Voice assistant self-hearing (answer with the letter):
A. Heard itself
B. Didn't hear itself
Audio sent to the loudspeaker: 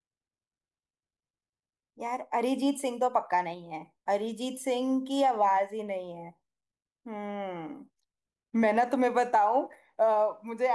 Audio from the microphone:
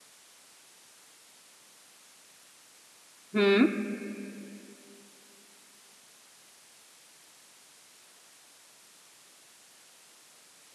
B